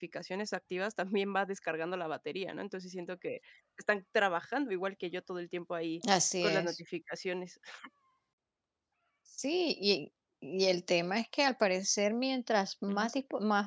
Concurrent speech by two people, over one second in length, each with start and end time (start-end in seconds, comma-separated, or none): none